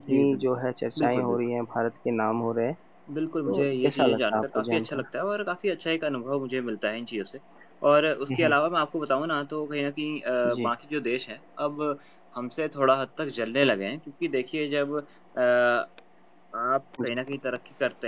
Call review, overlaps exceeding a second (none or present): present